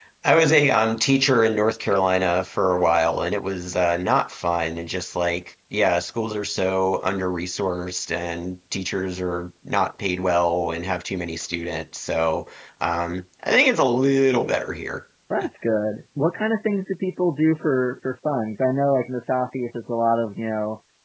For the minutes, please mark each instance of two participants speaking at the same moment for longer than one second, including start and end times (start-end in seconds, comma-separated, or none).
none